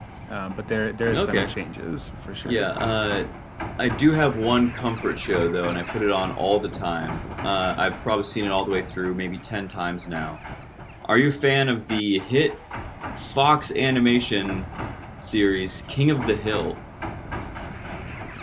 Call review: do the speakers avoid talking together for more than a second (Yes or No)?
Yes